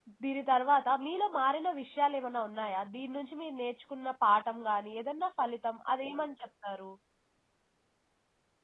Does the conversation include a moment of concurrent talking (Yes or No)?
No